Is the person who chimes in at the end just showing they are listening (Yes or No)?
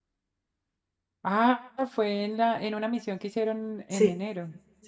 No